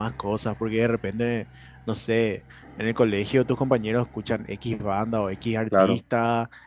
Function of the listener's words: listening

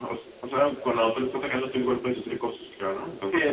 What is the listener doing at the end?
taking over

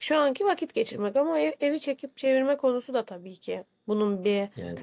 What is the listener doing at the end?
taking over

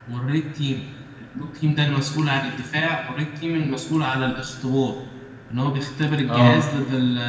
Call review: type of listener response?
listening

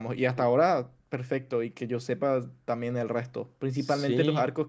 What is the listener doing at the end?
listening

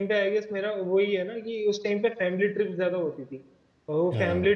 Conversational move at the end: listening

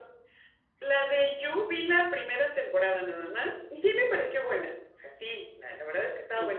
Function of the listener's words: listening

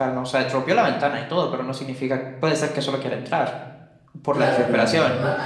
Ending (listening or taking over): taking over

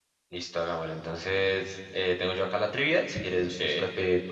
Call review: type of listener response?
listening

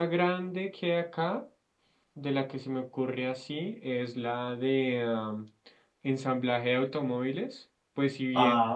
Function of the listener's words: listening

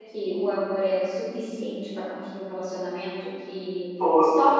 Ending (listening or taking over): listening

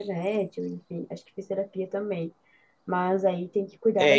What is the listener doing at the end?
taking over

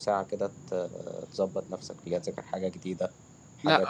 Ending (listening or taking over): taking over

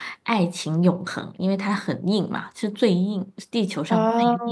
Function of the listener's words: taking over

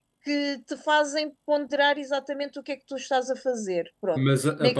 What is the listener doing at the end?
taking over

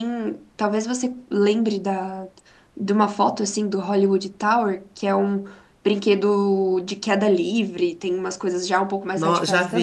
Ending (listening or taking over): taking over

